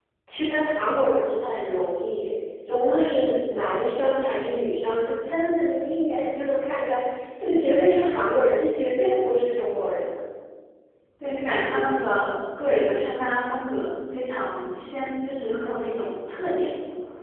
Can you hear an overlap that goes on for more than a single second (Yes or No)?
No